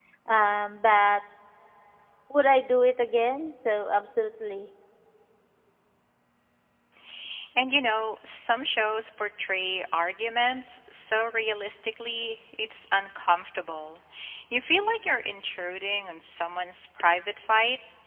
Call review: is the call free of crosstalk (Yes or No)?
Yes